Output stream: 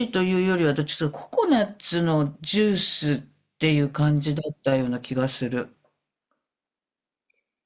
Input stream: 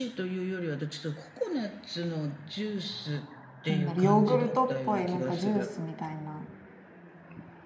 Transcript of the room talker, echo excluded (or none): なんだろう、ヨーグルトっぽいなんかジュースみたいな。